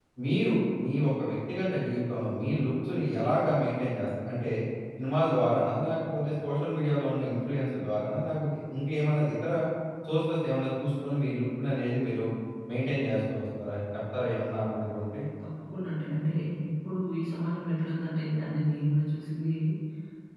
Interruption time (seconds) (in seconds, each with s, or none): none